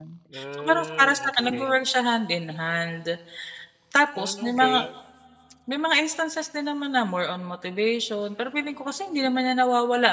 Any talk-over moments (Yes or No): Yes